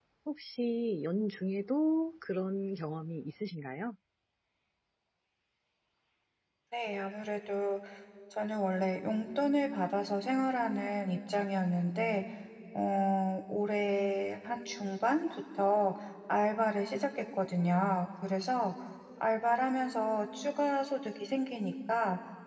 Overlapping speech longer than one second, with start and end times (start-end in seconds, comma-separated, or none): none